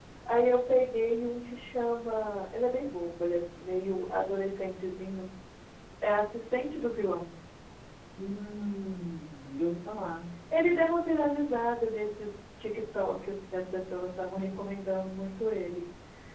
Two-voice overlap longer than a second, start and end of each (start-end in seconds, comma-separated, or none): none